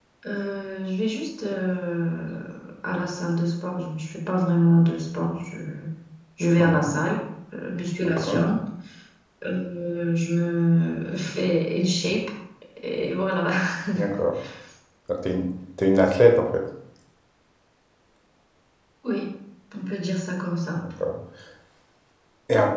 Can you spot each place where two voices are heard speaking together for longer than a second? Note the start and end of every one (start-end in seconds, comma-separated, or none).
none